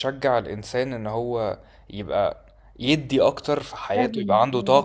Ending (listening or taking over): listening